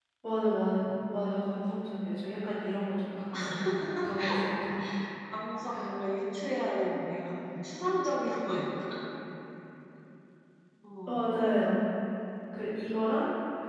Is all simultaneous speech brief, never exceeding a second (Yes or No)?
Yes